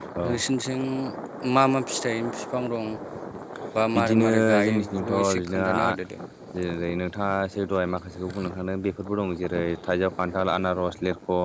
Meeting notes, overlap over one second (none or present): present